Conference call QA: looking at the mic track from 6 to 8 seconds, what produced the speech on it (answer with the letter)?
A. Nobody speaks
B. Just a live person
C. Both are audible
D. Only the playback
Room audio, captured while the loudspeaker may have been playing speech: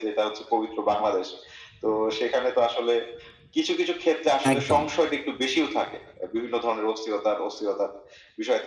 D